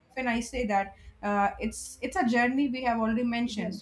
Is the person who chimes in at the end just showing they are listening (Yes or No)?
Yes